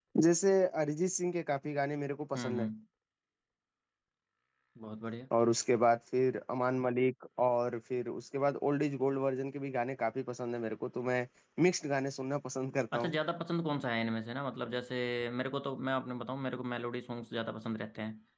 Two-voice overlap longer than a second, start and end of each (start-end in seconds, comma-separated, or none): none